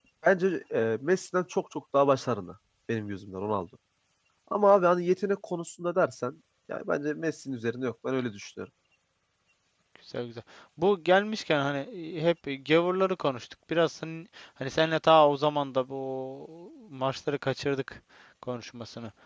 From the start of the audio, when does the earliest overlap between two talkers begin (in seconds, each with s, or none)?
none